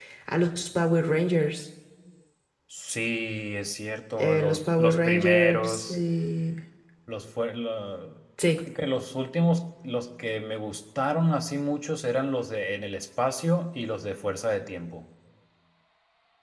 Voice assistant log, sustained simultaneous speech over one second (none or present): present